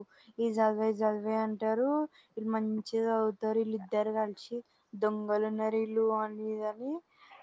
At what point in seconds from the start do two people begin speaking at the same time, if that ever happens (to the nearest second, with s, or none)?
none